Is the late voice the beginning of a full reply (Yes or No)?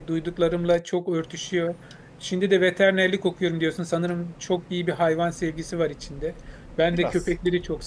No